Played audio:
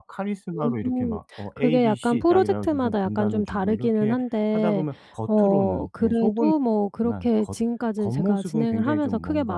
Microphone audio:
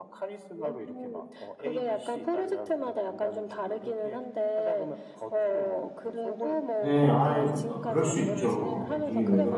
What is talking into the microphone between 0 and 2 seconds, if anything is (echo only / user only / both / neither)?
echo only